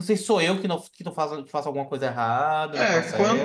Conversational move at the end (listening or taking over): taking over